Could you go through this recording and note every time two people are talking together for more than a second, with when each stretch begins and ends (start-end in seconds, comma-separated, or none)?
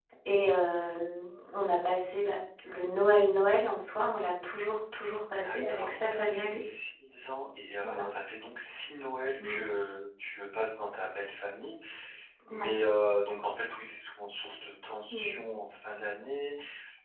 5.4-6.6